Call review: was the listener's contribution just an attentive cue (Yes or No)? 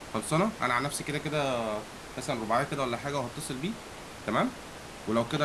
Yes